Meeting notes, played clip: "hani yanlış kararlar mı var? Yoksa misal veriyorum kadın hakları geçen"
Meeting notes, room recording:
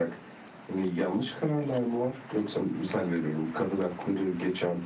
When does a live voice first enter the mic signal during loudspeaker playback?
none

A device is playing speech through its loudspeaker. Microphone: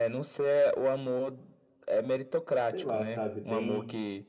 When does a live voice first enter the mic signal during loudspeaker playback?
2.7 s

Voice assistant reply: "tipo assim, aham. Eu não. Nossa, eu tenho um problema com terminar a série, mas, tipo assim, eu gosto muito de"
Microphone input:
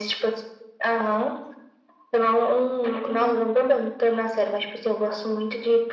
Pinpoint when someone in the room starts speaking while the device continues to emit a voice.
3.0 s

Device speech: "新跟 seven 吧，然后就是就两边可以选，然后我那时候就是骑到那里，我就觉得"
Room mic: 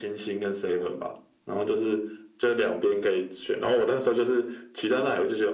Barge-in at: none

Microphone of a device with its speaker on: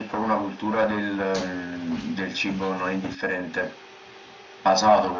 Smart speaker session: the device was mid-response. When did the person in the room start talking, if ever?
none

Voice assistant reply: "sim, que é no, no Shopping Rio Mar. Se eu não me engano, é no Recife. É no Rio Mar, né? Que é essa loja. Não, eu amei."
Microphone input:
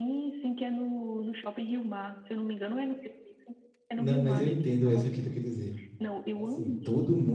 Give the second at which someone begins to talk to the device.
3.9 s

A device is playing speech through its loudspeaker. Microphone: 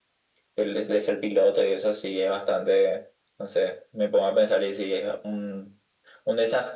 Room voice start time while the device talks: none

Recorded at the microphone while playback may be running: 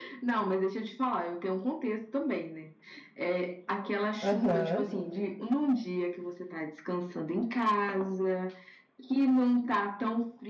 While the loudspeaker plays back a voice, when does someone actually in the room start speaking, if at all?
4.2 s

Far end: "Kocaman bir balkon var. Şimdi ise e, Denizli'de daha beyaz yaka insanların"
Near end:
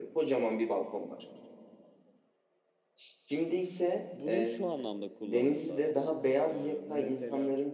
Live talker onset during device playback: 4.1 s

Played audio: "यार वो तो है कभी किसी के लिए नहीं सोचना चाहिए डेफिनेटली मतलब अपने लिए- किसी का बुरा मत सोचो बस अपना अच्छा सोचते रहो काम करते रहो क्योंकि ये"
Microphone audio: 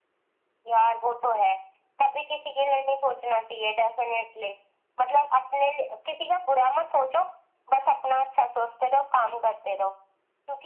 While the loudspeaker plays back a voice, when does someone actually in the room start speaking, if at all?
none

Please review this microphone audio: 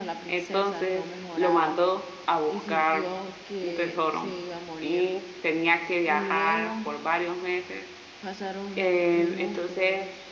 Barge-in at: none

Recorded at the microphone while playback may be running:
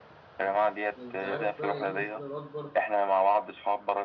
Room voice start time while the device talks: 1.0 s

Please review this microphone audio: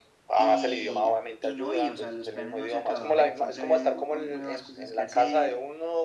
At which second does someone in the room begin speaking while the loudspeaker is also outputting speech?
0.4 s

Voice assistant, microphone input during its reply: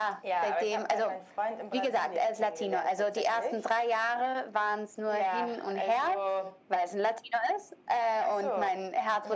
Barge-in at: none

